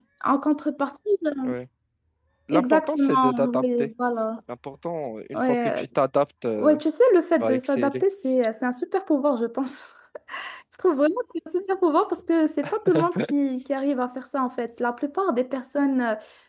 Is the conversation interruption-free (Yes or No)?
No